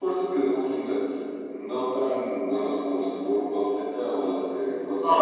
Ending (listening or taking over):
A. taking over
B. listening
A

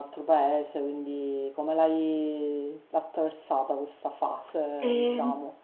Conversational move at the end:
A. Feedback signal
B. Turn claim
B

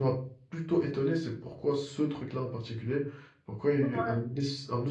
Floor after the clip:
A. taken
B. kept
B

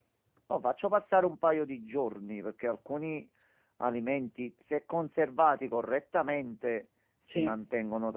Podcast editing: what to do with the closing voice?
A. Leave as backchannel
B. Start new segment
A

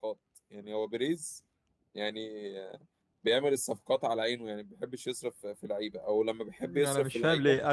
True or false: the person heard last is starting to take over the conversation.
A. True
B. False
A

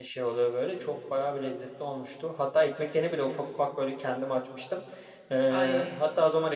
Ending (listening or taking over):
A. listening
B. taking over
A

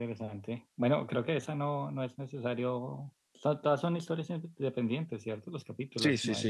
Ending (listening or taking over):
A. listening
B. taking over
B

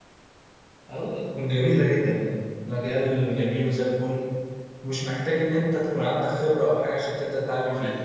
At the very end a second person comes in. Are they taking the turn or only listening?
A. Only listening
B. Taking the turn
B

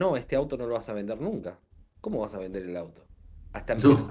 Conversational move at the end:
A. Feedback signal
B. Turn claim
A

